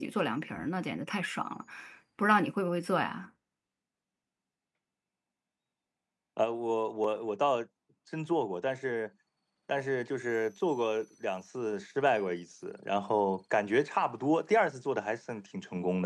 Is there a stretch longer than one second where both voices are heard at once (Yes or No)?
No